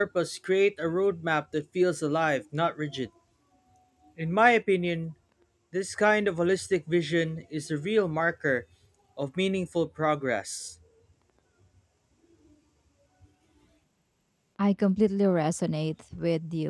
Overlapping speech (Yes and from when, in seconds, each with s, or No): No